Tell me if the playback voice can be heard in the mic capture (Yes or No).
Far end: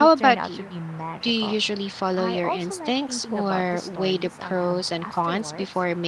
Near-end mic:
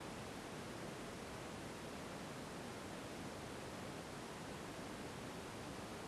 No